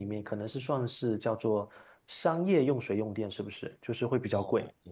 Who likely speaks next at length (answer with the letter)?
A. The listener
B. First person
A